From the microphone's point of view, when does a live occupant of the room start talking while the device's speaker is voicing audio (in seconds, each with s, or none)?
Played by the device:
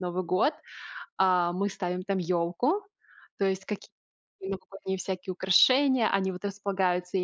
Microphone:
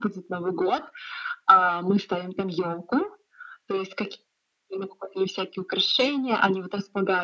none